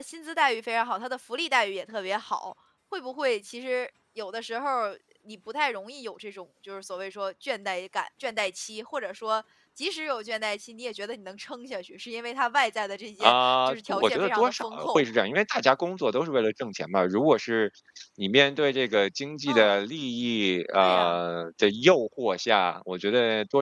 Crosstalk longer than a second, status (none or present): present